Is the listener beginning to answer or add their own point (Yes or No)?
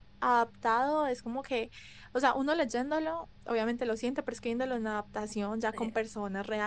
No